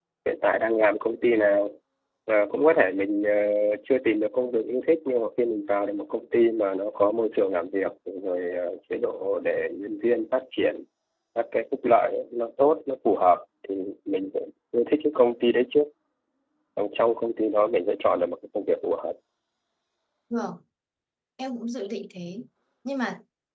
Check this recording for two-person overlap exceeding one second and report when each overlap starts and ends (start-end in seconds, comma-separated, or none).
none